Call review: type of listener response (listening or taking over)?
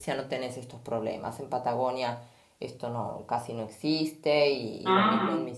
listening